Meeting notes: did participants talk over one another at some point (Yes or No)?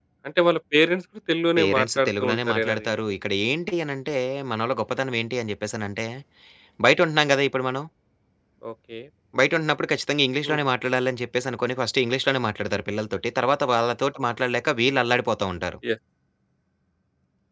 Yes